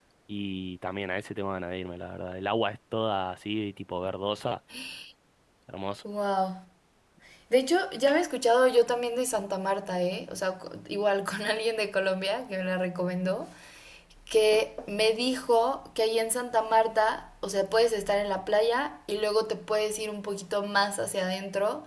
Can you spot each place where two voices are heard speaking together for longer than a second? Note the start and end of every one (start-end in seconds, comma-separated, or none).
none